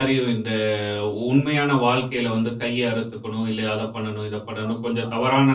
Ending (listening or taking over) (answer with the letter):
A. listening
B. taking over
A